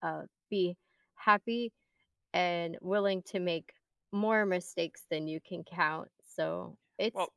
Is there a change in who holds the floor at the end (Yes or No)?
No